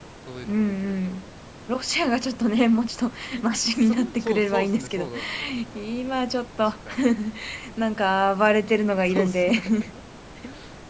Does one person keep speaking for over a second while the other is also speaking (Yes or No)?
Yes